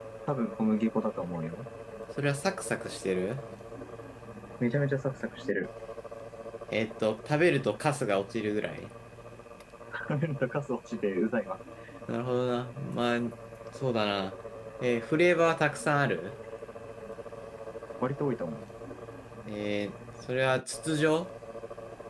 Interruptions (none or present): none